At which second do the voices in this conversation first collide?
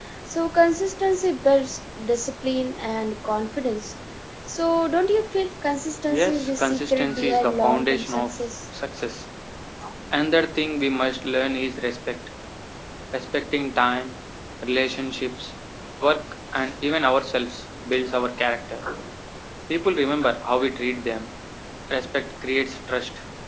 6.1 s

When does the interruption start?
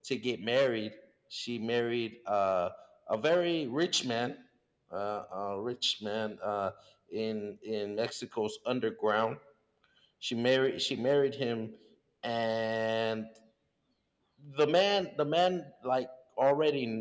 none

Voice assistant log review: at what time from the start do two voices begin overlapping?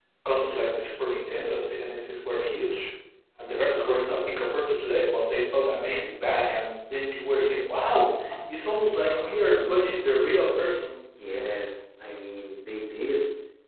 none

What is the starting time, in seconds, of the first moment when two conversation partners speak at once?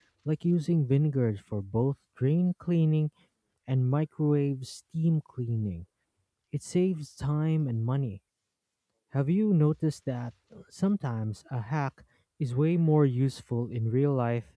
none

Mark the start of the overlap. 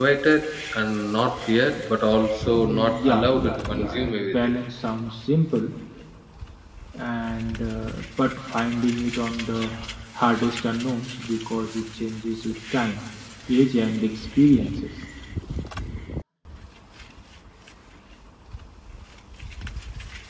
2.5 s

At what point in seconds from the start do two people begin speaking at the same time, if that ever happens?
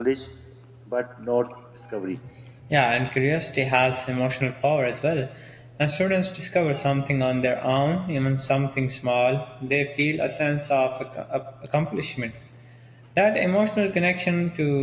none

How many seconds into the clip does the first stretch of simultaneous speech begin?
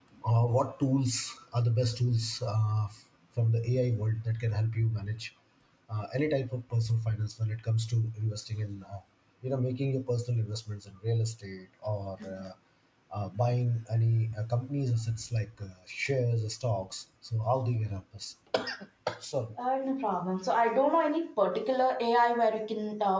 none

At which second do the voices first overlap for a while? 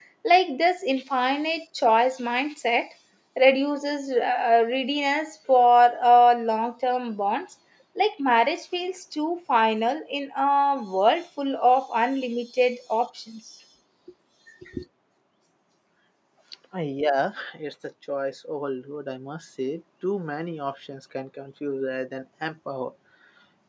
none

